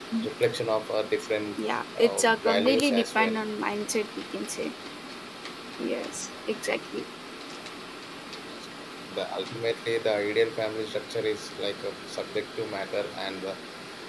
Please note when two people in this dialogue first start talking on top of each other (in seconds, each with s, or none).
2.0 s